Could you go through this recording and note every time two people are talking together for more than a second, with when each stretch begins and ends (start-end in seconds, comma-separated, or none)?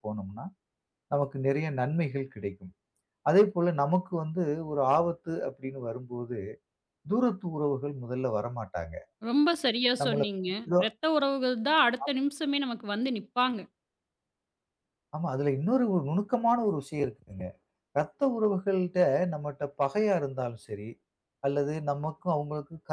none